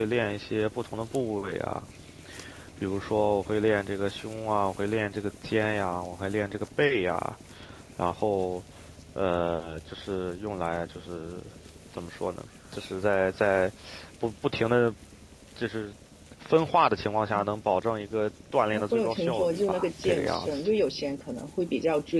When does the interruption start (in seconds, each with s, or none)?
18.7 s